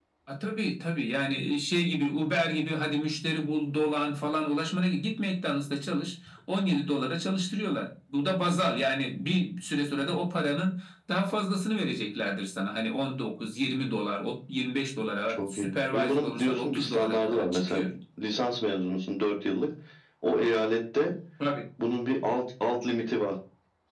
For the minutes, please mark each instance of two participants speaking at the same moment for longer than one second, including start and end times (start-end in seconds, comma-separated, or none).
15.3-17.8